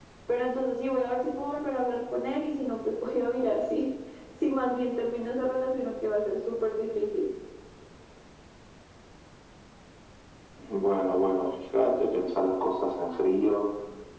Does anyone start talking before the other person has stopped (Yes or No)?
No